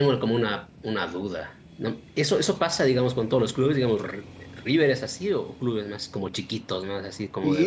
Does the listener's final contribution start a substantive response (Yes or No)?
Yes